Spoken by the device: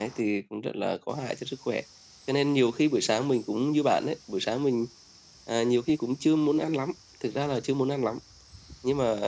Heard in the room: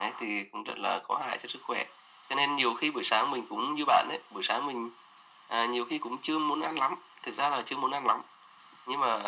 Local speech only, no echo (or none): none